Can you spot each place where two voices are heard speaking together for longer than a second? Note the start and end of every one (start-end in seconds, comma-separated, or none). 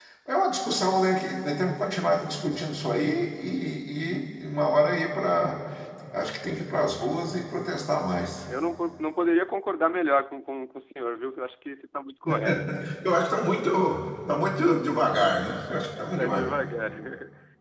none